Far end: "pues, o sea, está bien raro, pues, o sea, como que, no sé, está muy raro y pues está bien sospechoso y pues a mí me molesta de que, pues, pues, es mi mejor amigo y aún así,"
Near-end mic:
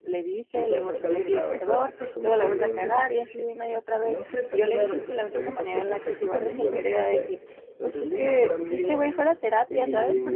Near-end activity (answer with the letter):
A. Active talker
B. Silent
A